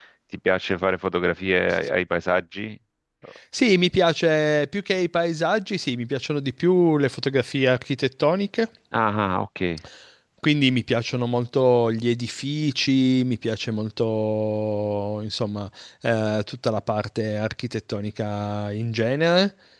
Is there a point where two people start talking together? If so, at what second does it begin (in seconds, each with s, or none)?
none